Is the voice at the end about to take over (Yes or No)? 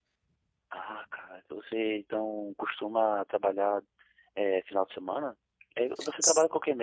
No